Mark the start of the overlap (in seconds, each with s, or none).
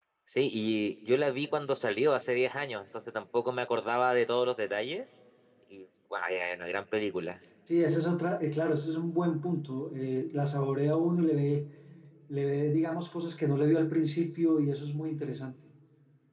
none